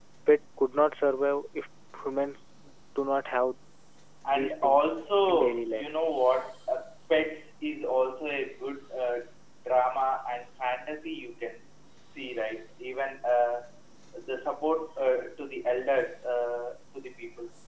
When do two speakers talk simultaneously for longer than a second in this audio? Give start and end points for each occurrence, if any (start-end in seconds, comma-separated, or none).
4.3-5.8